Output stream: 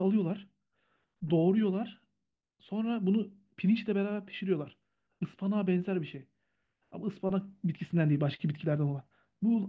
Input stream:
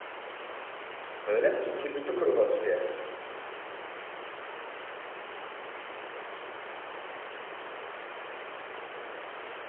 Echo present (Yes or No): No